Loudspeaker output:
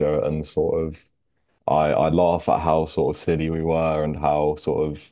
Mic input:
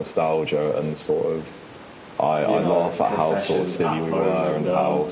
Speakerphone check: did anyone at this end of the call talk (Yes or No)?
Yes